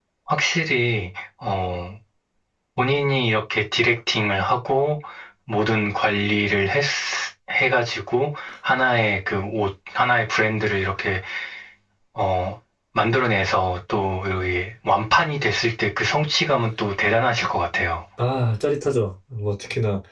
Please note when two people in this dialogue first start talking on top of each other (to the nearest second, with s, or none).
none